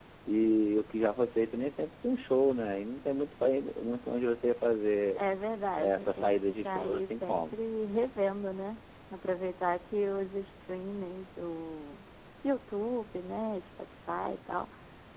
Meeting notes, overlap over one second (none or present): present